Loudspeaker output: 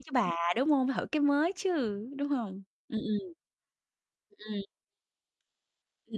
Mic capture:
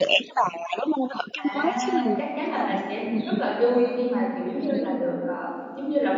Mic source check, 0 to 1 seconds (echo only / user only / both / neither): echo only